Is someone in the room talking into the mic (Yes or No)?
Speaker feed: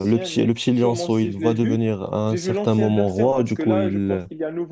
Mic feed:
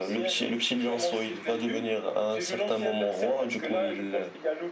No